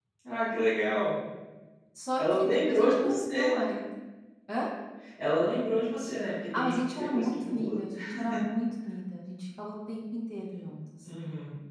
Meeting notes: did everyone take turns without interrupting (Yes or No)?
No